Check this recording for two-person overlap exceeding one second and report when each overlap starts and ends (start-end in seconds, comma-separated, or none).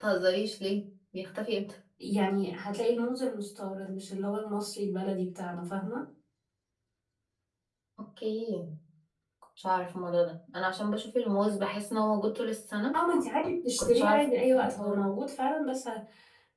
none